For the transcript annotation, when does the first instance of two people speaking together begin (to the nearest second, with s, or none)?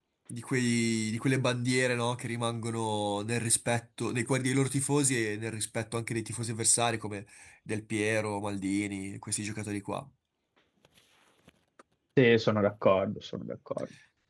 none